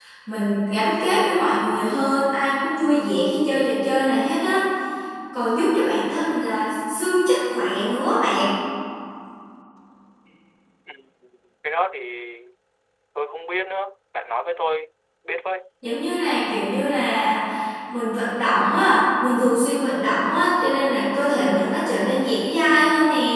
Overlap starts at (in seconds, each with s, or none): none